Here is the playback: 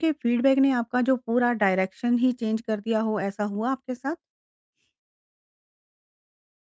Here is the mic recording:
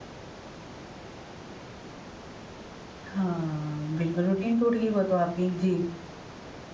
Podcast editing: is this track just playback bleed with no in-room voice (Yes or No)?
No